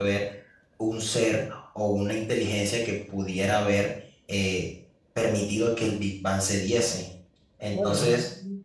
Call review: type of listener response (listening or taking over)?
taking over